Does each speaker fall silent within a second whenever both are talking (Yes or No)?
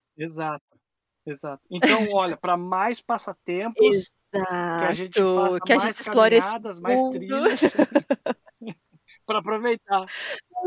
No